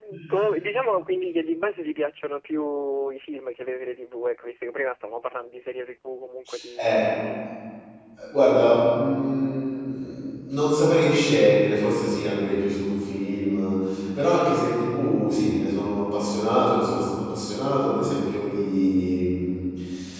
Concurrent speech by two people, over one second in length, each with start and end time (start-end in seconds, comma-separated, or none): none